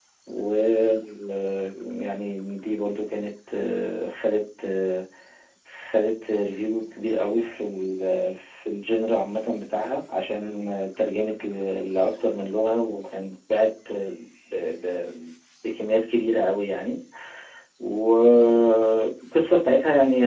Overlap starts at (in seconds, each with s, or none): none